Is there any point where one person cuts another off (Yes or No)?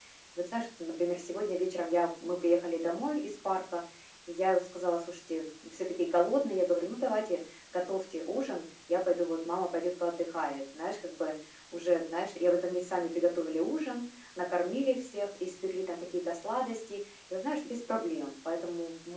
No